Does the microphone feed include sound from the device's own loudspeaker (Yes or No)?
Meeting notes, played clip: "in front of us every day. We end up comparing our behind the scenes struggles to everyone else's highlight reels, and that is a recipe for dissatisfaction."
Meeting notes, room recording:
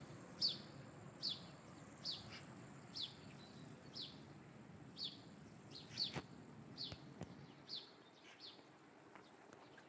No